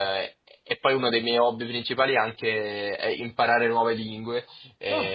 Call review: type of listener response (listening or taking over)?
listening